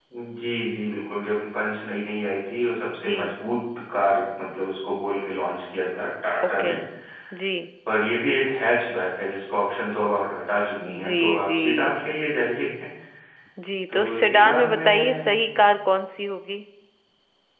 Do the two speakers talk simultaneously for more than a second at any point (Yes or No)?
Yes